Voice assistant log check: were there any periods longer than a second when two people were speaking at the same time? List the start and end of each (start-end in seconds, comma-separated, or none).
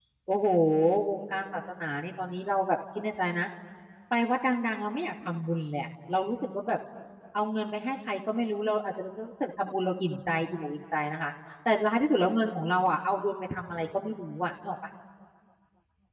none